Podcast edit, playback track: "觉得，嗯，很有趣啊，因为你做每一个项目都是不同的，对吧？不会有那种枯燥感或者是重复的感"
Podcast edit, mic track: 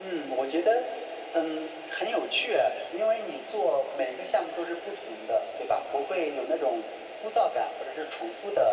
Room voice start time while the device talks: none

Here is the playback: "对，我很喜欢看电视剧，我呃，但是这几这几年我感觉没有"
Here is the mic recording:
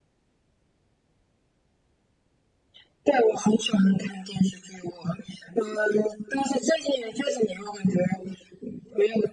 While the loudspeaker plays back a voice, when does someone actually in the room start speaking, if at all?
none

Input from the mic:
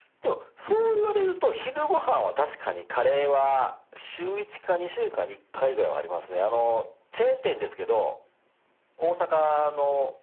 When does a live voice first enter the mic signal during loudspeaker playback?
1 s

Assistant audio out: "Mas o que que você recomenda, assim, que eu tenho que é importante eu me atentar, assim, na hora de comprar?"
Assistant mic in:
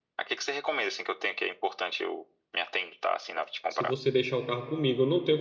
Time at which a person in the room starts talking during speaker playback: 4 s

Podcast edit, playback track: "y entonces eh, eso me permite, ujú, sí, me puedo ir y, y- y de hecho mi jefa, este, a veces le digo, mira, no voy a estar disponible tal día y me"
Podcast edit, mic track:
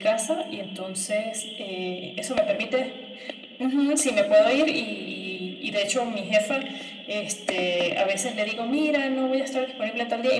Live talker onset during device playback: none

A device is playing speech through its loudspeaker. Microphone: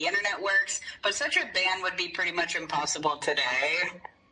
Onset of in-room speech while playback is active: none

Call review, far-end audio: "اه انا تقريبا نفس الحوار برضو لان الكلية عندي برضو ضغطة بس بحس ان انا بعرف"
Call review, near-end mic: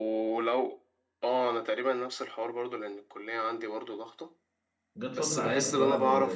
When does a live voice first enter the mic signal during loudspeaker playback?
5 s

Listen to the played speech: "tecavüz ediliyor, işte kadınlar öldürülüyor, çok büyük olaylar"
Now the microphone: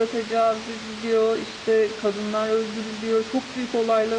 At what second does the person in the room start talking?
none

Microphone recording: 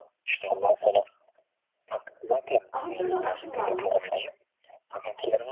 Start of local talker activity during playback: 3 s

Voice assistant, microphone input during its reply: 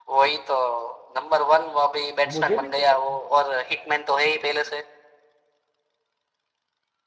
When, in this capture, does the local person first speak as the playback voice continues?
2 s

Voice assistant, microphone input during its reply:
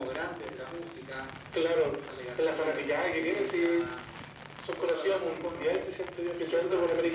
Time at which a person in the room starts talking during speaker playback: none

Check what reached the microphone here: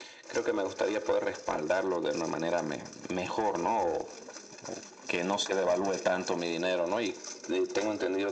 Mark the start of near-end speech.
none

